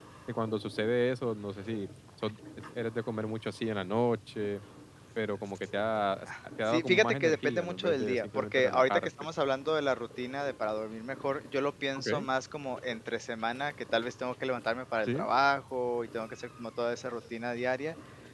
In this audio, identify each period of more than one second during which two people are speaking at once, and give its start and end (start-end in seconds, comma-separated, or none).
6.7-9.1